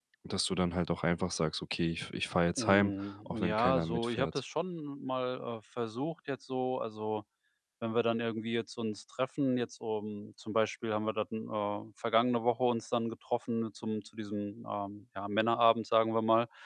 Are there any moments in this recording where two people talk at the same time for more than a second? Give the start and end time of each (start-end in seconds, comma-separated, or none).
2.6-4.4